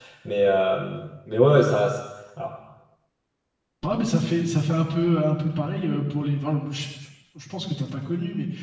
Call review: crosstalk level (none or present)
none